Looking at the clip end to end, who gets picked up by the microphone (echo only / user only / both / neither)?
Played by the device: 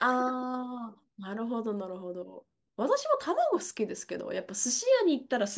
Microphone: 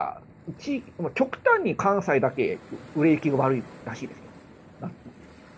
user only